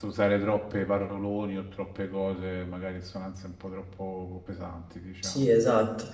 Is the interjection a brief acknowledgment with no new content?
No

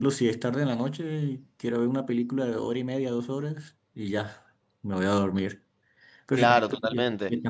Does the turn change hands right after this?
Yes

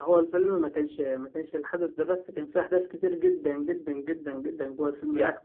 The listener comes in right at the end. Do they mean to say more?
No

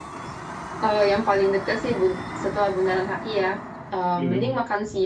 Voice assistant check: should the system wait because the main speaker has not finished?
Yes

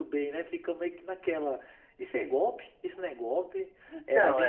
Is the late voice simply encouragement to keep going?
Yes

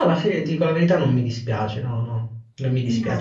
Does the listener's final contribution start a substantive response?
No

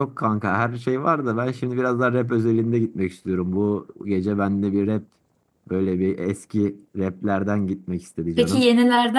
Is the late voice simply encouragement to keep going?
No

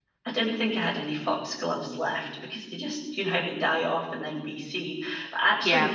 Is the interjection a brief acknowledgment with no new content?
Yes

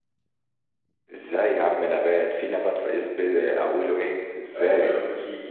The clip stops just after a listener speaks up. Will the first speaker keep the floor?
No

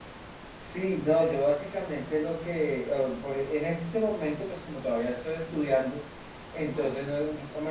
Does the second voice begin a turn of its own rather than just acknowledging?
No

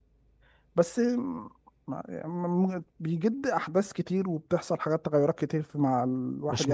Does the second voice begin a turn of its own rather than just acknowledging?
No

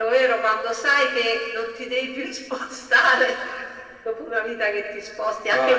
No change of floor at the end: Yes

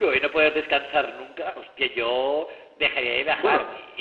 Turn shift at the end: No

